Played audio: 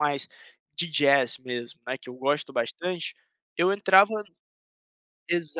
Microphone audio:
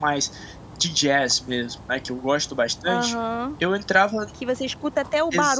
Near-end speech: present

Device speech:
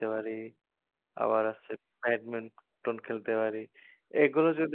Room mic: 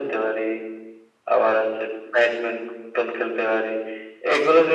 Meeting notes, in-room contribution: none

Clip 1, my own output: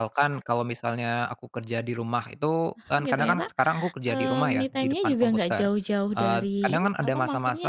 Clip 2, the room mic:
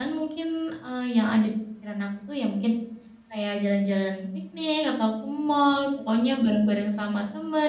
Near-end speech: present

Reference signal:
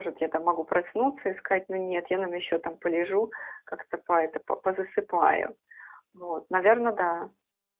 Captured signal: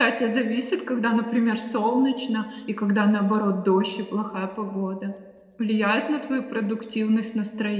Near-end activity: present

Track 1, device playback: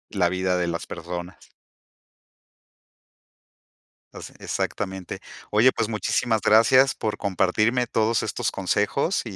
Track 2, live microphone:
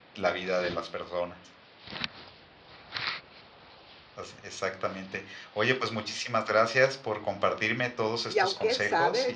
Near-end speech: present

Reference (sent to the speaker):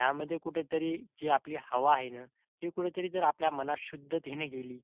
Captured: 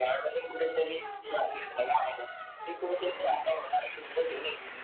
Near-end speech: none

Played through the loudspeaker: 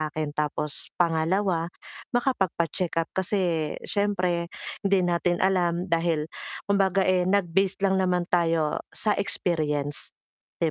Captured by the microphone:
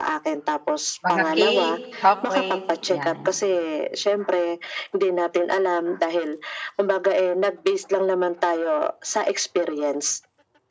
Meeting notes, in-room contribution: present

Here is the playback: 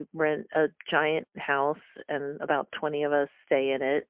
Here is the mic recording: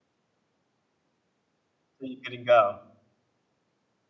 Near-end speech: present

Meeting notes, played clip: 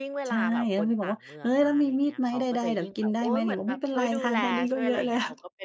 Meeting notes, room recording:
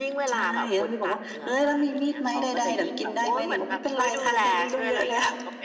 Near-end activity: none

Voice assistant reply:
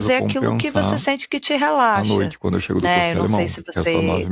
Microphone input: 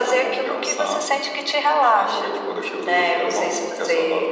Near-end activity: none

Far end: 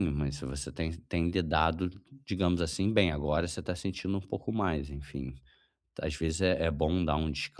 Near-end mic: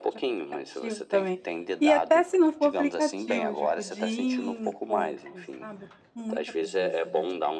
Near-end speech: present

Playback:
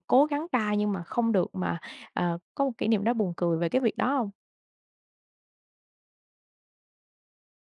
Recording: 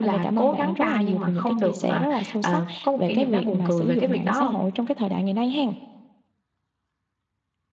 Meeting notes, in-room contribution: present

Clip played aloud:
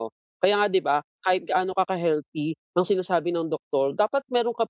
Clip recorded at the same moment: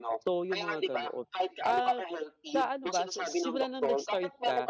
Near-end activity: present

